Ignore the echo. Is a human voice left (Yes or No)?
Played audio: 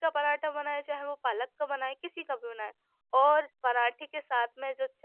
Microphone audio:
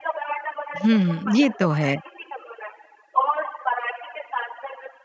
Yes